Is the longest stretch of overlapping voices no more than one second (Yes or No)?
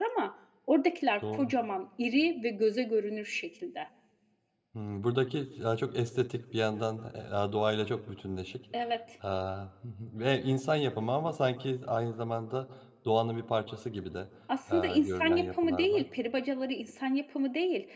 No